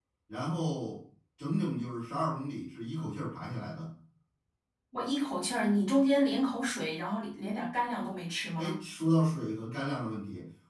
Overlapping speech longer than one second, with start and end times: none

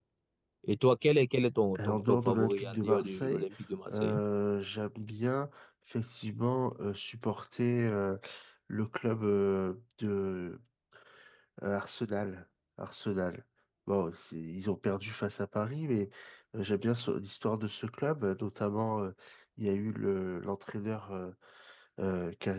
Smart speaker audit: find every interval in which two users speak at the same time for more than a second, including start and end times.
1.8-3.4

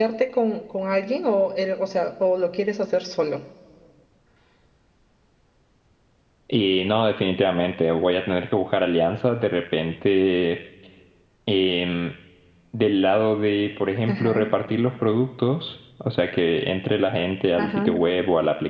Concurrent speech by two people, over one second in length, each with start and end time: none

